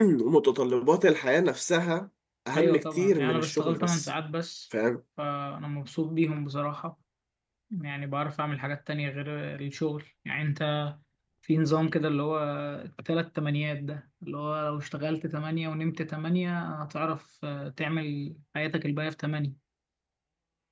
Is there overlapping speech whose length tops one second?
Yes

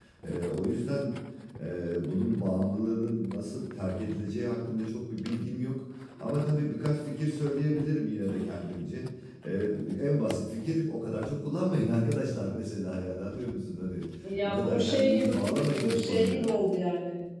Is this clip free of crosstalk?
No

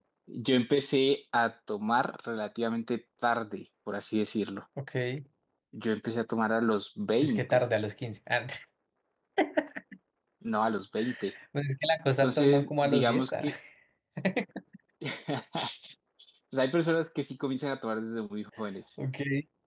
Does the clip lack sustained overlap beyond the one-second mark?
No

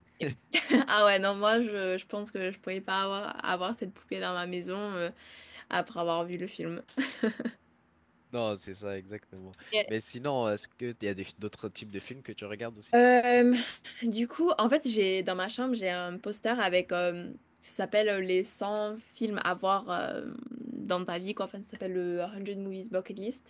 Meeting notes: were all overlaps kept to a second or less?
Yes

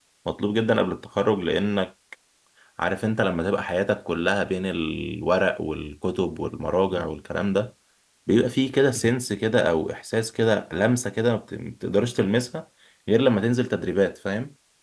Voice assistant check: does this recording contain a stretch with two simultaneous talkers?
No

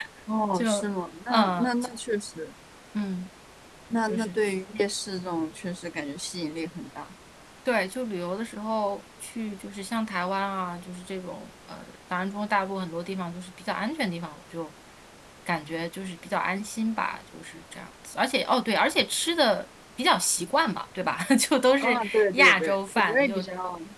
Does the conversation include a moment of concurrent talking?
Yes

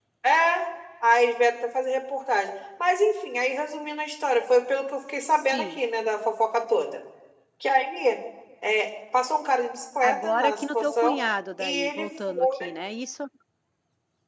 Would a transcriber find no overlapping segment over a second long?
No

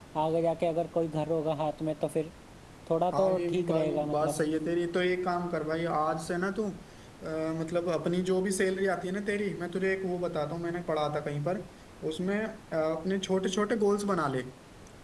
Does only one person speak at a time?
No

